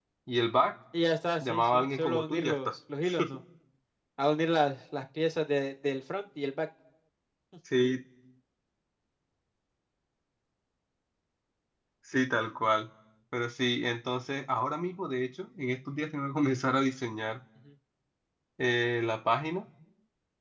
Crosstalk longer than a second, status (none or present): present